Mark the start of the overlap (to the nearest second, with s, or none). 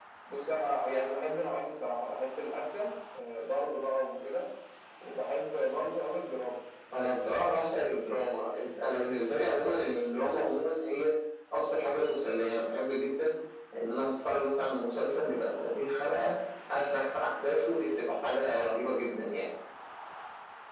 none